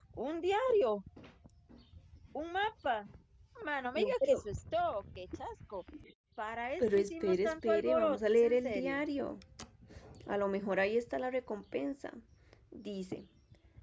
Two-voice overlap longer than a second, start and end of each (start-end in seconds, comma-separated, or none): 6.8-9.0